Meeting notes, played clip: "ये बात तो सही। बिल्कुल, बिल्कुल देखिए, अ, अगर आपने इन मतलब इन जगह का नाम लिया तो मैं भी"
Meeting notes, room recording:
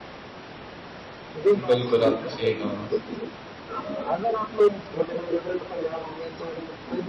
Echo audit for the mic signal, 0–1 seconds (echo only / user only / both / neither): neither